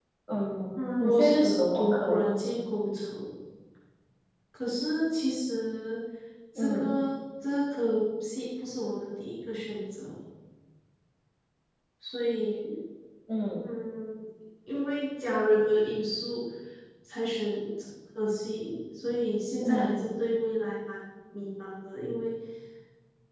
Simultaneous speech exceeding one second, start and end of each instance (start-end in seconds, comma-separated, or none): 0.8-2.2